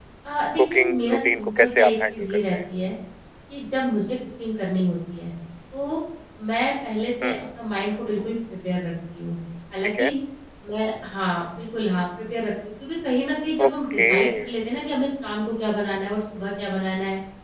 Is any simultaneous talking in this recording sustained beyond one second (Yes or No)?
Yes